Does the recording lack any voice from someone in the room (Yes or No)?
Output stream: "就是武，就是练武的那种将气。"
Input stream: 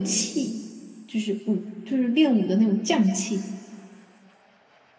Yes